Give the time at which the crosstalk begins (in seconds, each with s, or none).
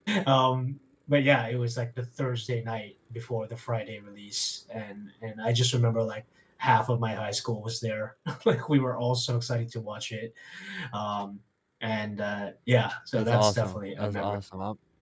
13.1 s